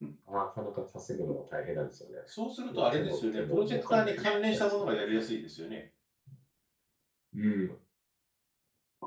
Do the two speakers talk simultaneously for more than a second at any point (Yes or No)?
Yes